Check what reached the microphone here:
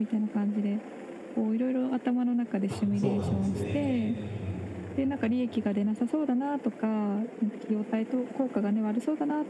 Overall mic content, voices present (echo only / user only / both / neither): both